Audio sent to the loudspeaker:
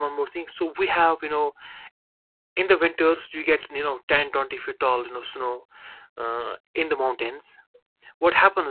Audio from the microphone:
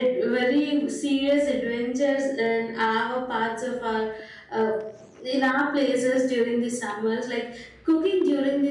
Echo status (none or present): none